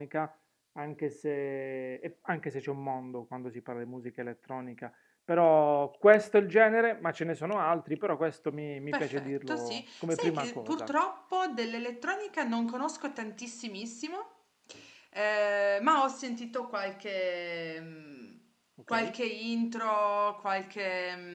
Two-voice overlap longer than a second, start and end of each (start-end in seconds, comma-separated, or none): 8.9-10.9